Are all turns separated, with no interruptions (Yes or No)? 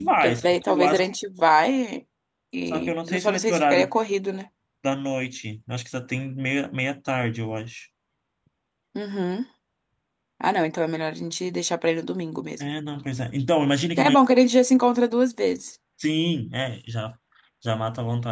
No